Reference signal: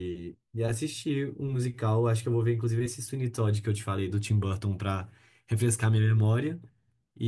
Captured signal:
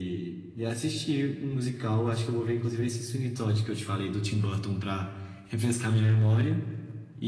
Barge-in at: none

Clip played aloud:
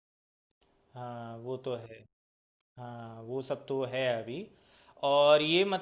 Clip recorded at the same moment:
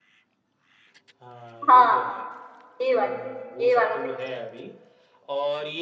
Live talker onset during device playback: 1.7 s

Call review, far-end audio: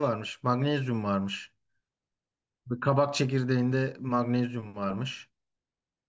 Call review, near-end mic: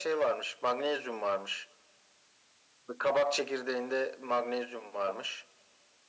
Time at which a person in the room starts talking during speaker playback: none

